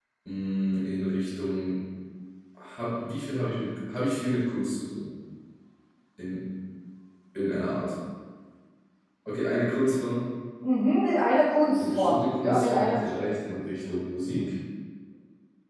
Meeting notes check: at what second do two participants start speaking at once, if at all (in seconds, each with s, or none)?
11.8 s